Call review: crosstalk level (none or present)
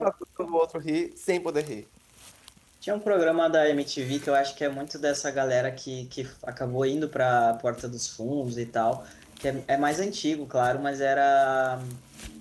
none